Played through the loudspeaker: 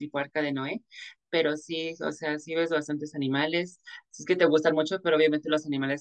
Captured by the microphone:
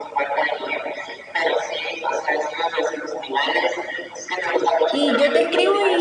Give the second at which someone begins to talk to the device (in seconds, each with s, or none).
4.9 s